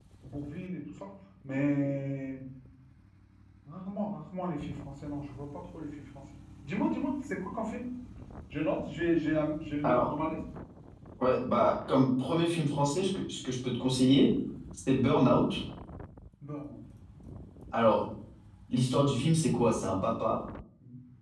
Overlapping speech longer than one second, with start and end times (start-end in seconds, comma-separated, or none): none